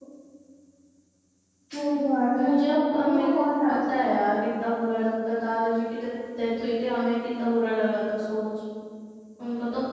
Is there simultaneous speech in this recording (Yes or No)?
Yes